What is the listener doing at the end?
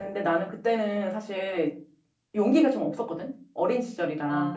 taking over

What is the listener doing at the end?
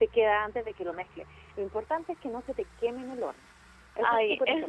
taking over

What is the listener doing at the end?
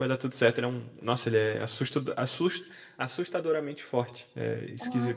taking over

